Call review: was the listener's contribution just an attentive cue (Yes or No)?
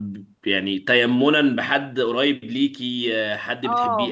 No